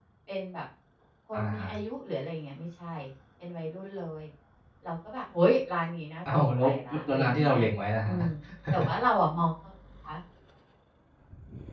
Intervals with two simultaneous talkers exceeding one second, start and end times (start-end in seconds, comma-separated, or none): 6.3-7.6